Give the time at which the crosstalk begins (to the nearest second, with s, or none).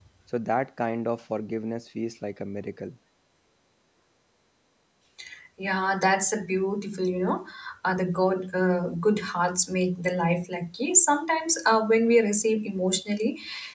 none